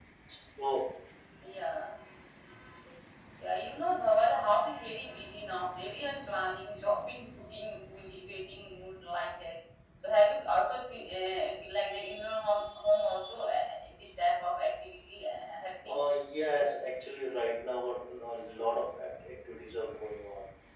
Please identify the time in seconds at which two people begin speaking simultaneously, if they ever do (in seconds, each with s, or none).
none